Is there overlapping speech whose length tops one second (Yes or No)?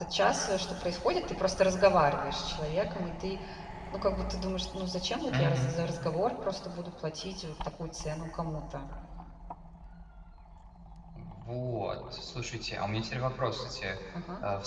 No